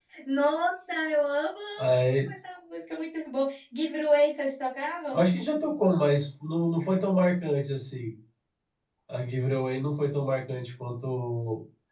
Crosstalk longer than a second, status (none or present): none